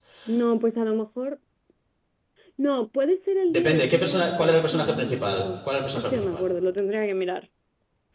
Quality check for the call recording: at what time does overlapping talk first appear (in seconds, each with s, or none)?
3.5 s